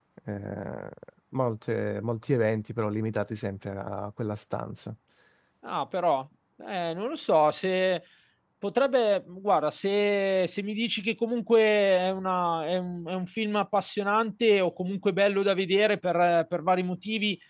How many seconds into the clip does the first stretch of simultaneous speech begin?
none

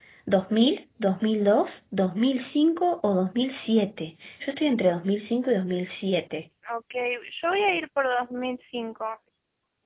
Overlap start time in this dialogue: none

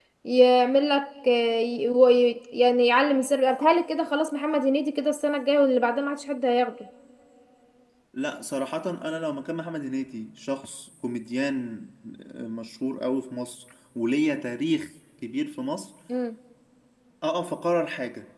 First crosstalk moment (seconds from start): none

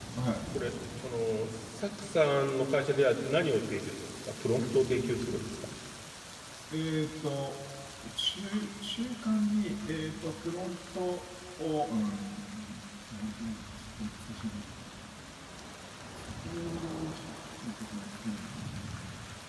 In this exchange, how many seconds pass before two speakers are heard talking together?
none

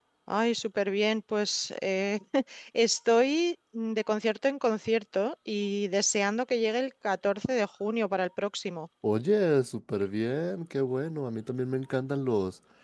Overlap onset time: none

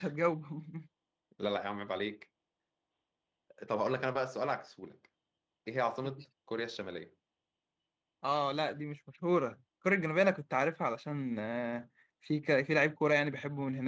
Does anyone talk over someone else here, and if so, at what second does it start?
none

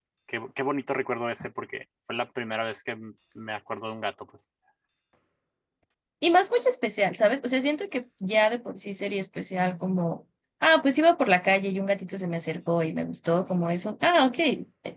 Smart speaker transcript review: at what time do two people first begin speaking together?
none

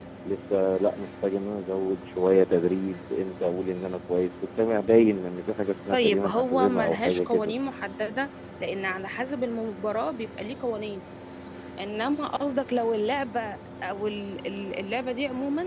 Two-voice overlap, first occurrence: 5.9 s

